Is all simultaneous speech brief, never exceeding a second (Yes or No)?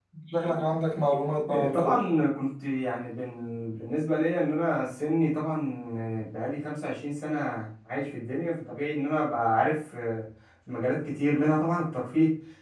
Yes